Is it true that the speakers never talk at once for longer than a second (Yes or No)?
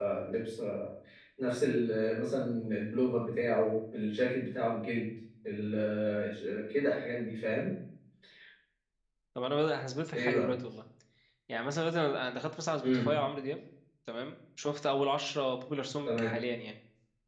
Yes